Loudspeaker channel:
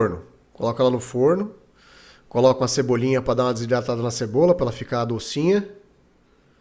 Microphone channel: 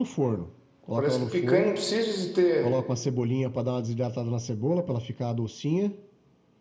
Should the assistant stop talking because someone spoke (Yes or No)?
Yes